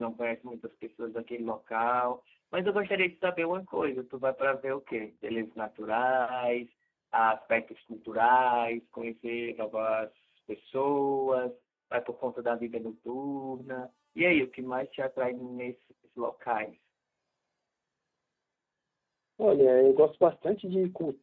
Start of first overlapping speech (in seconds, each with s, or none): none